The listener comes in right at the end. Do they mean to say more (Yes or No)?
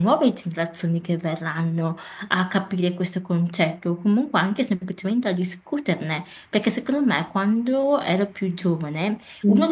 No